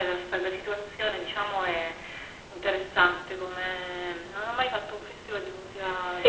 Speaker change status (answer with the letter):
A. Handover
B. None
A